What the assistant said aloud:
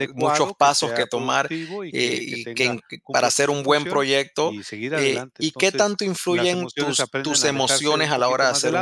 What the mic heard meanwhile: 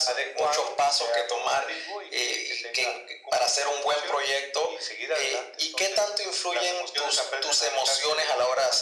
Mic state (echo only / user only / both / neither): echo only